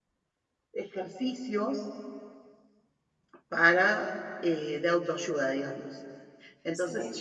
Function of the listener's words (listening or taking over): listening